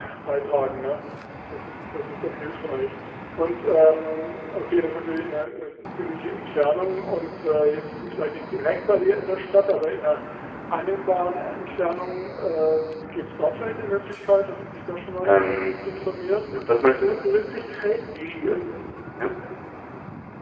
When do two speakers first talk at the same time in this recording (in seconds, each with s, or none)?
none